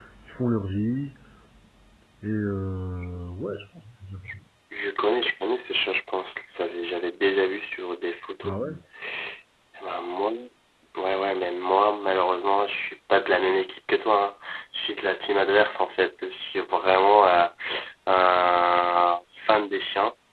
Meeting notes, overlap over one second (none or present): none